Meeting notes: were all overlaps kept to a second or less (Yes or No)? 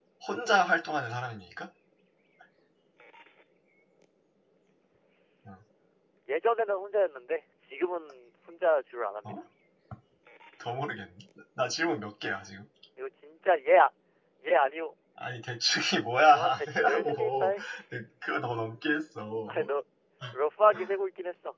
No